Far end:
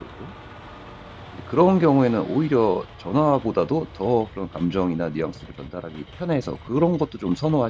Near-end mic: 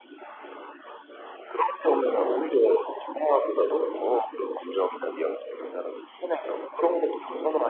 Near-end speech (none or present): none